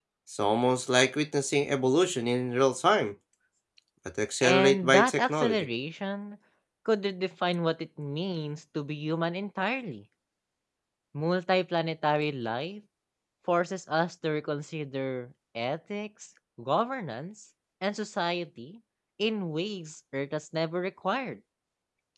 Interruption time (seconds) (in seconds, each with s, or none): 4.4 s